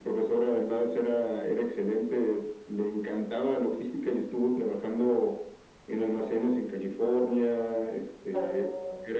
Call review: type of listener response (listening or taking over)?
listening